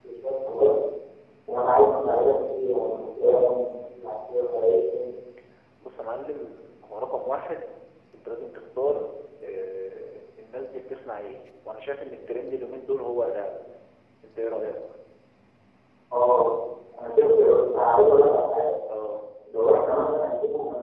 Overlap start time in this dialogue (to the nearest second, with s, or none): none